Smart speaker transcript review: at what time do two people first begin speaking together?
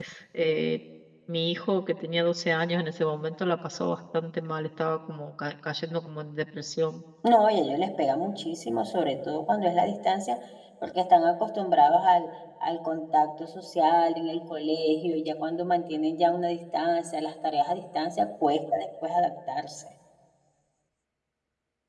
none

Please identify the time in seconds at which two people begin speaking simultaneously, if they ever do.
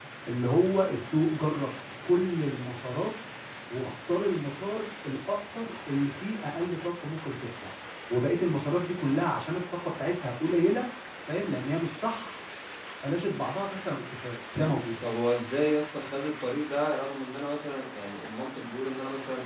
none

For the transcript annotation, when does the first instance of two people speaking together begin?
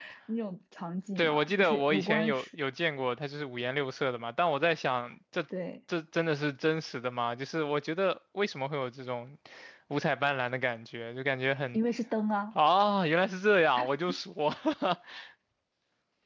1 s

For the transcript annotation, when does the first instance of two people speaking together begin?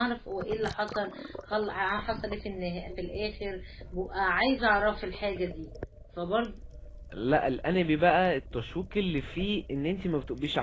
none

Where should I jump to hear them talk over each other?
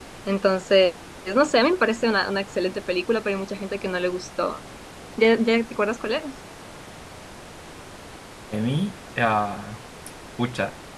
none

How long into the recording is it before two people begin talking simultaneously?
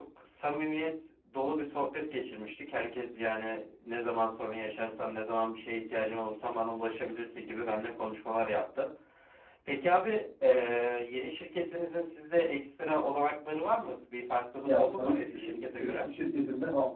15 s

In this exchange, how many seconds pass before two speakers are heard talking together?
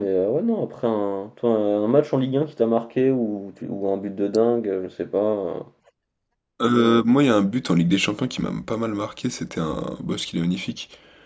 none

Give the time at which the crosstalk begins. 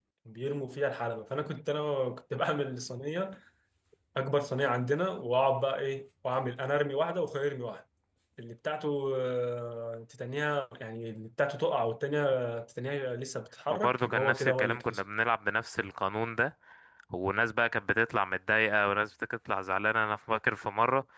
14 s

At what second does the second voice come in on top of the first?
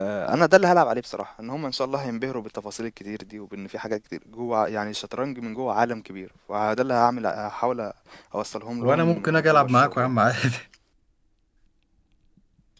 9 s

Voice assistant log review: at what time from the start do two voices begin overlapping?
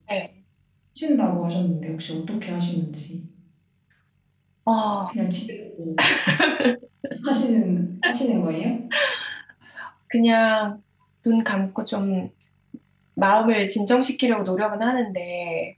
none

